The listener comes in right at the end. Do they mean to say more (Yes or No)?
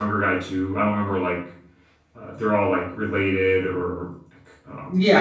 Yes